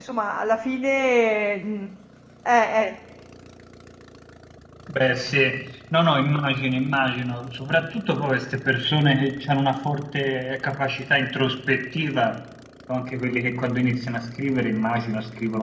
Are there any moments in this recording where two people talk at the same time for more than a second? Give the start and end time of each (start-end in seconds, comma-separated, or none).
none